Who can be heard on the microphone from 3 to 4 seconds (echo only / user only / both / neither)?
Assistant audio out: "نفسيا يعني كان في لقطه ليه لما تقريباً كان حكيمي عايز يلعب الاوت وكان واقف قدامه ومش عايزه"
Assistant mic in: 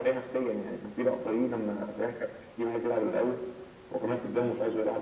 echo only